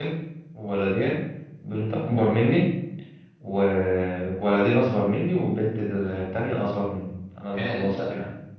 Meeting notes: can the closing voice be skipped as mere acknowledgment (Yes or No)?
No